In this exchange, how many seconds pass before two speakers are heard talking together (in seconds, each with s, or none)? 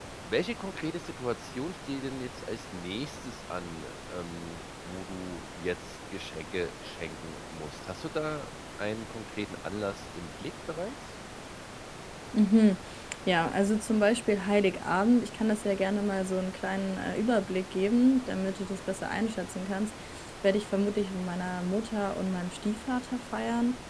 none